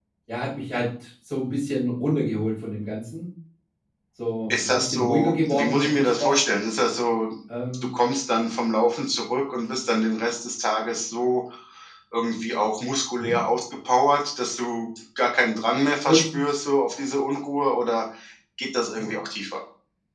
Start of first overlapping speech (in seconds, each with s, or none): 4.5 s